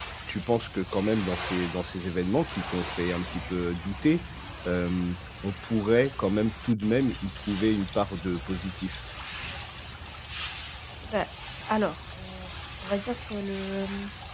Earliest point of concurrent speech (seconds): none

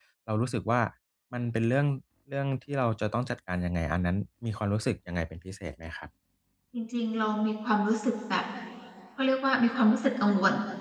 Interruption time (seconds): none

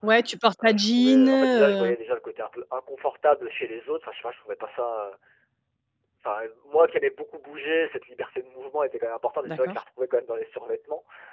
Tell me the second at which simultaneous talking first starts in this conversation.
0.6 s

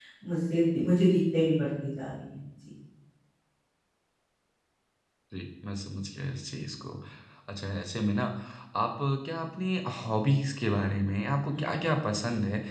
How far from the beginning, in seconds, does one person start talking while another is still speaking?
none

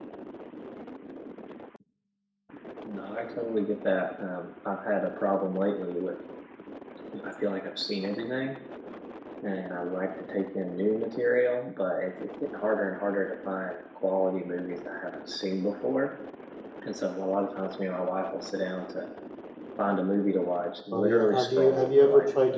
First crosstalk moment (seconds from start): 20.9 s

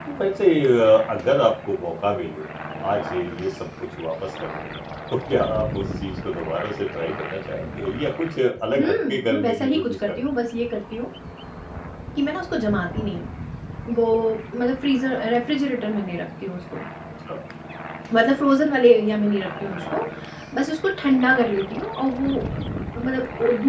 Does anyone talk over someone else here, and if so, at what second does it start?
8.8 s

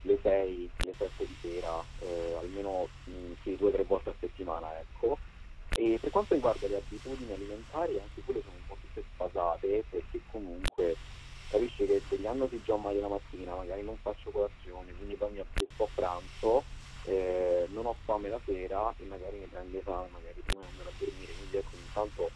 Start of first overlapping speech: none

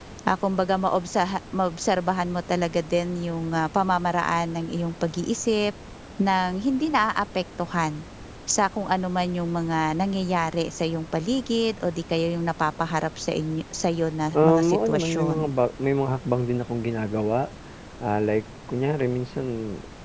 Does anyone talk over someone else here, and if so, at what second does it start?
14.3 s

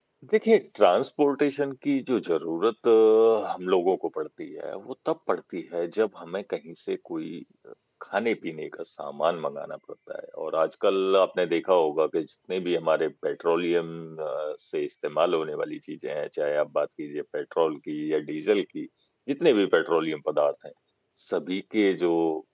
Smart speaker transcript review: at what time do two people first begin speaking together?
none

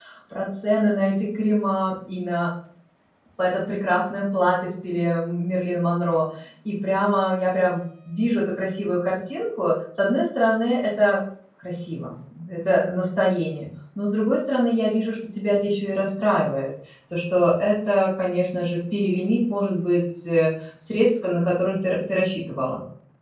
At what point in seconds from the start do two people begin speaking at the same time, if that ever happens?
none

